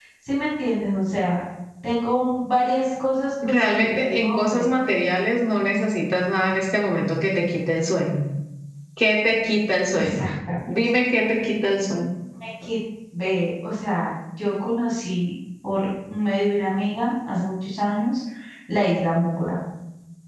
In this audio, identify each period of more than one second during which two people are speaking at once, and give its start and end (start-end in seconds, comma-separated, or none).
3.4-4.7